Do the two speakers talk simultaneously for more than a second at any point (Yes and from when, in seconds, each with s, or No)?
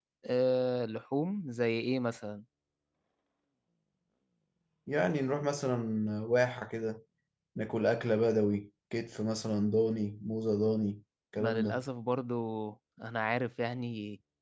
No